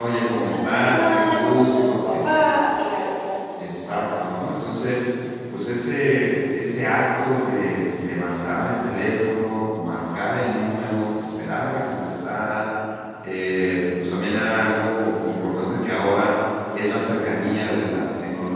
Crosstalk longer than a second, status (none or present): present